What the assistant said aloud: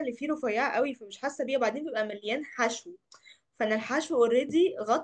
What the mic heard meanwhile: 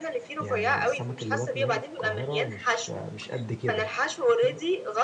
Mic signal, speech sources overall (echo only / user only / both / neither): both